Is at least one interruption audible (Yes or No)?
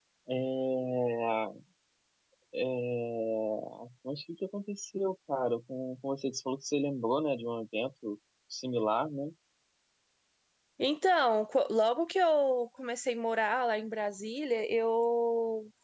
No